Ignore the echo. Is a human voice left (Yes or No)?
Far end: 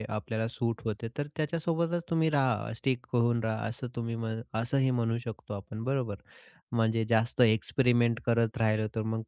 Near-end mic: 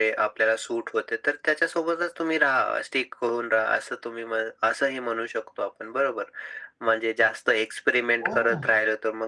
Yes